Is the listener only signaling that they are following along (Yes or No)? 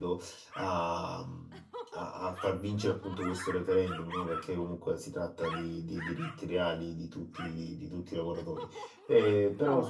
No